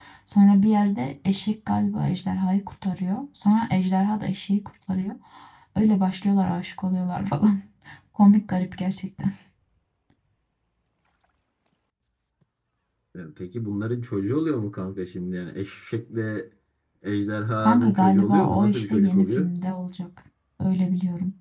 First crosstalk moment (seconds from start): 17.6 s

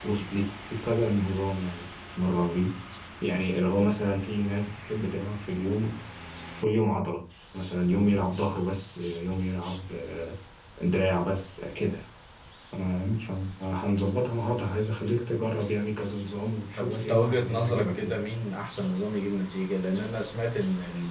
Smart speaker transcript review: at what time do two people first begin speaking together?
16.8 s

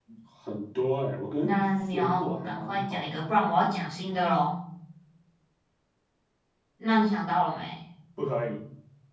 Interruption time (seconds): 1.4 s

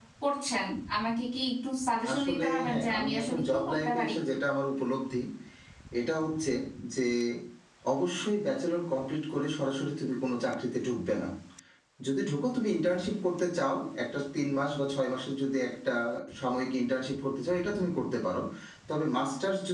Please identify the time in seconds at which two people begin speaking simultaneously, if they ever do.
2.0 s

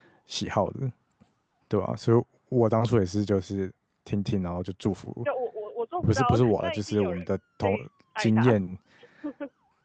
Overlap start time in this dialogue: 6.0 s

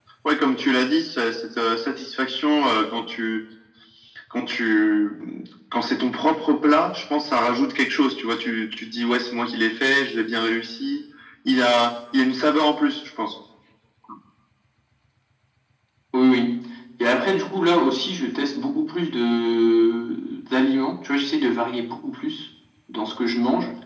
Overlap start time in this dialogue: none

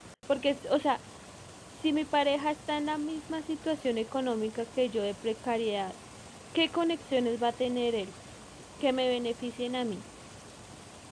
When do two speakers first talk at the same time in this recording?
none

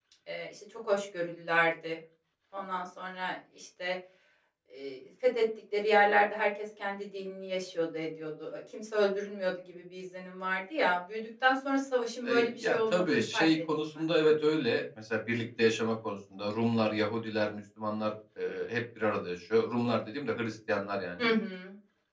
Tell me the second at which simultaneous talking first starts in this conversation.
12.2 s

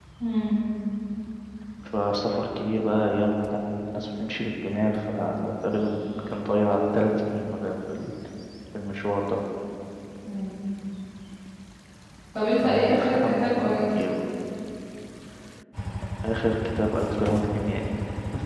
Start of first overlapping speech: 12.5 s

